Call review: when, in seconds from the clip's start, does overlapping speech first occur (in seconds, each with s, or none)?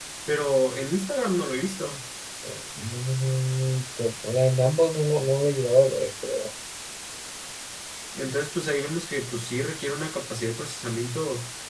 none